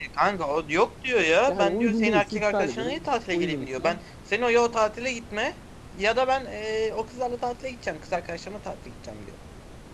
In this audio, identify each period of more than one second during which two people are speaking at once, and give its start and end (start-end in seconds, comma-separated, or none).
1.5-4.0